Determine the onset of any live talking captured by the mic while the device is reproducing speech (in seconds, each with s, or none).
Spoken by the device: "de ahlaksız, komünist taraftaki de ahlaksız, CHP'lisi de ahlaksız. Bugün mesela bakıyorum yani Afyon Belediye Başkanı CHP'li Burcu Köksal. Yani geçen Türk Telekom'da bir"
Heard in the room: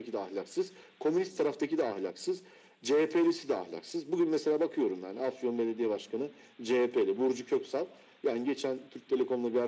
none